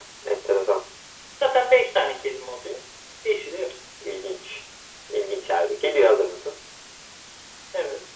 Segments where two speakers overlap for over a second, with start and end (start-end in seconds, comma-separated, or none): none